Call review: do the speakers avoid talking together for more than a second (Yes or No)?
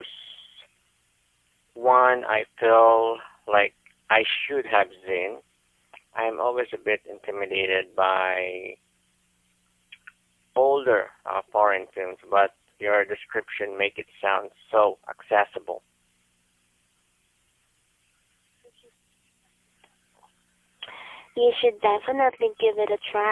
Yes